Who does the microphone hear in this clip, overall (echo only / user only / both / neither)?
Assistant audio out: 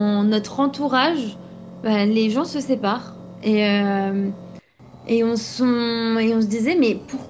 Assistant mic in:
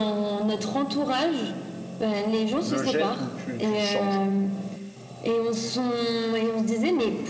both